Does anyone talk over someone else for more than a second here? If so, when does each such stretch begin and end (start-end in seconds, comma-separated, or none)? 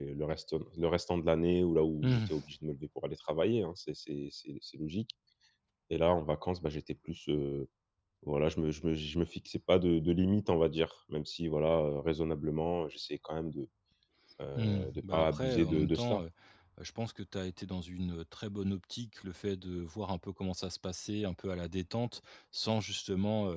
14.6-16.2